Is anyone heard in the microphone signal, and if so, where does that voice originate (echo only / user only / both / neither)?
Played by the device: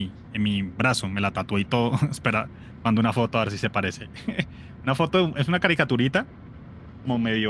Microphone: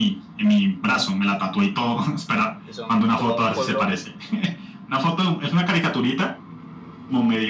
both